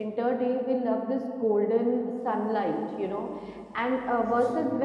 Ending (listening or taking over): listening